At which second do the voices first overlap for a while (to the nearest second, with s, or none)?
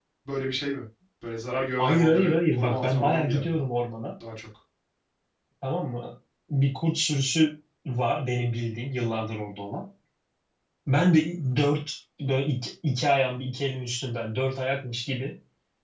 2 s